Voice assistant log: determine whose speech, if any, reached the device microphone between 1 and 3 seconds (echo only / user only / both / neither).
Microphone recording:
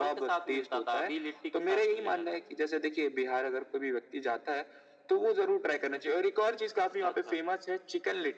echo only